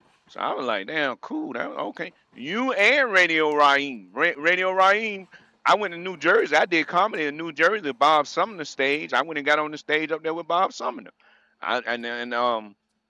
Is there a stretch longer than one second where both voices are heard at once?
No

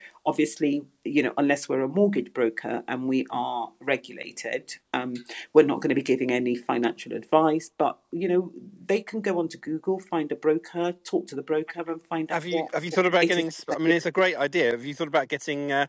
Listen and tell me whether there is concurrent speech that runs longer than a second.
No

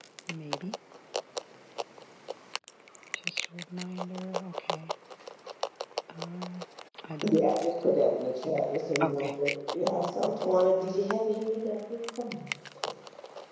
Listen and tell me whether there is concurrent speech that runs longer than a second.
No

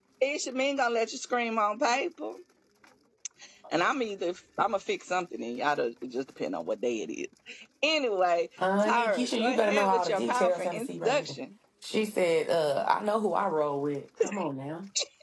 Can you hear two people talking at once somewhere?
Yes, from 8.6 s

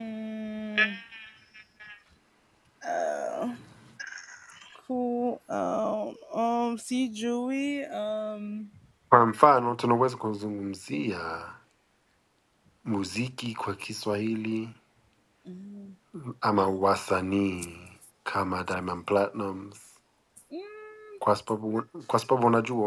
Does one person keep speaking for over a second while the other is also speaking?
No

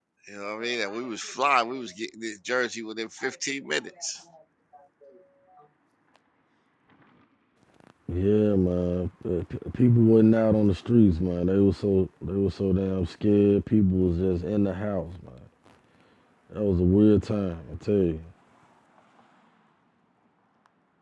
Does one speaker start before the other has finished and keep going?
No

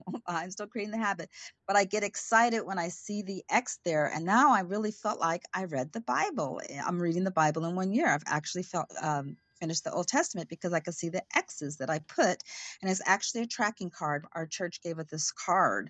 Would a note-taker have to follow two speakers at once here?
No

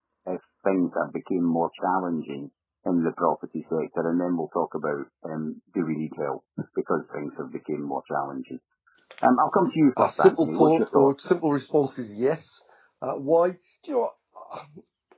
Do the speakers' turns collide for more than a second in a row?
Yes, from 10.0 s

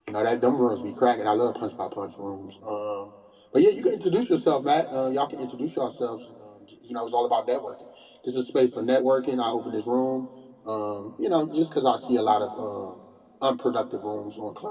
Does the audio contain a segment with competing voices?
No

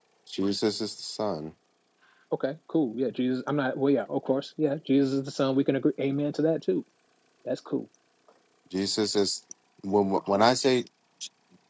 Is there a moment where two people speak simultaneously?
No

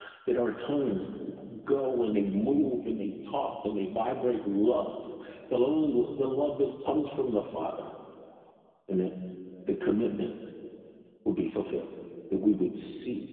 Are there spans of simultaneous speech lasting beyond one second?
No

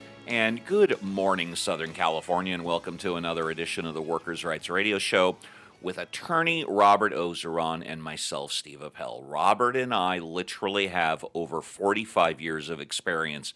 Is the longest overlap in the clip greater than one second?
No

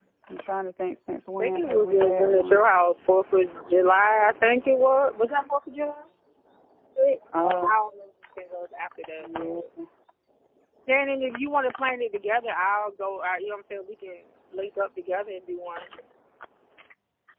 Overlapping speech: Yes, from 1.4 s

